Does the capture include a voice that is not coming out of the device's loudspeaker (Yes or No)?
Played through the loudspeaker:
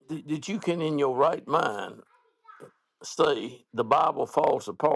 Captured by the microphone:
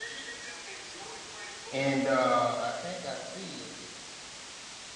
Yes